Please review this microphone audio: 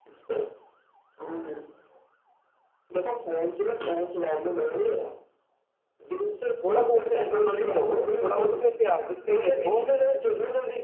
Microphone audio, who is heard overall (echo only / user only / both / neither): both